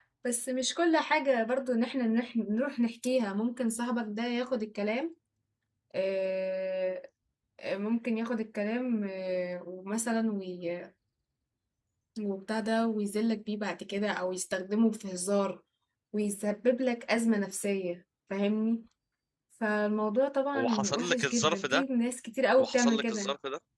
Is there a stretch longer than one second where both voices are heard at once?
Yes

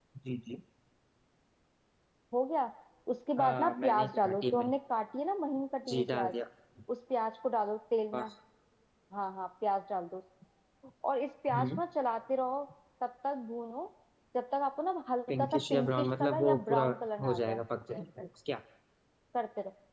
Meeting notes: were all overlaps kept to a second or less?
No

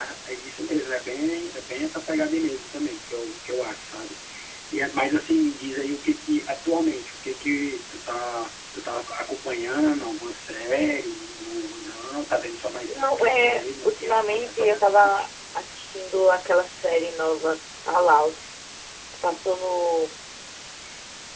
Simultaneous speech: Yes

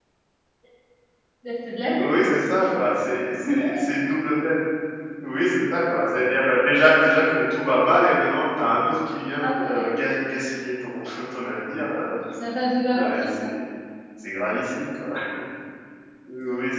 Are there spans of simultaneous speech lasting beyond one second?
No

